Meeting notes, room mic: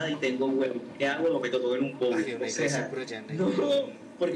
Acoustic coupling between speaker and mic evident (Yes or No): Yes